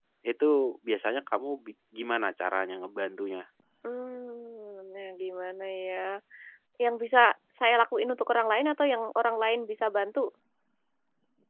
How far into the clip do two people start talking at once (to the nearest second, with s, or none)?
none